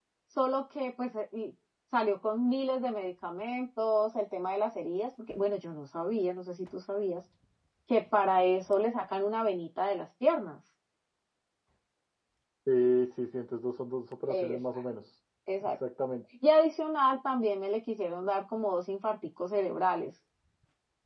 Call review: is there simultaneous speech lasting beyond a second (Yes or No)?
No